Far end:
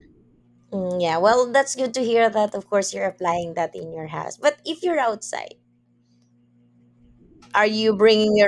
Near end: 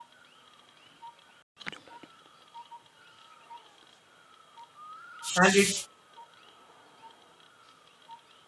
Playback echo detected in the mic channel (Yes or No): No